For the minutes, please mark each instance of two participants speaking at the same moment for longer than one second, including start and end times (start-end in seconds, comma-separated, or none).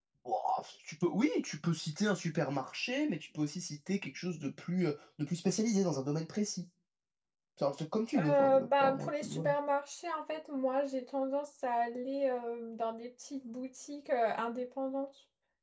8.2-9.5